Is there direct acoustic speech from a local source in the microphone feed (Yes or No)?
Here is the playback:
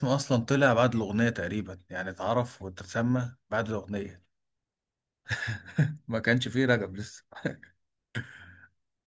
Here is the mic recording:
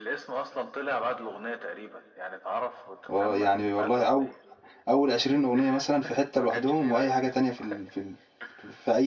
Yes